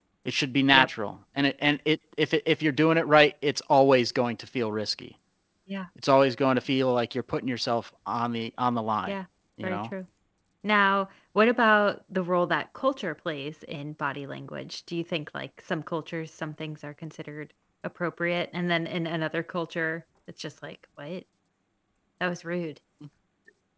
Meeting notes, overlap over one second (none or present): none